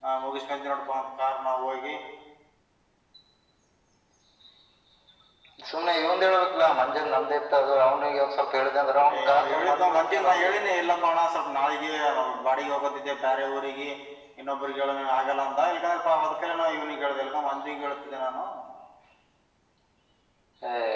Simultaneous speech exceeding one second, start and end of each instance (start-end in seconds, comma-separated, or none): 9.2-10.5